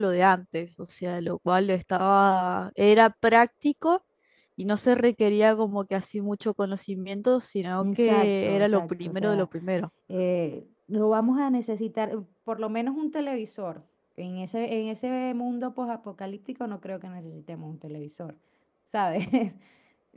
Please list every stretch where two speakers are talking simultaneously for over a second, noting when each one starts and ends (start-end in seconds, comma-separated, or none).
7.8-9.5